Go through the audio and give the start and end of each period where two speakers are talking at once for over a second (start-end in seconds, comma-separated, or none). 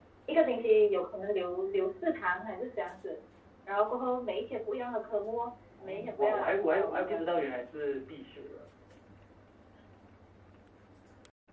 5.8-7.4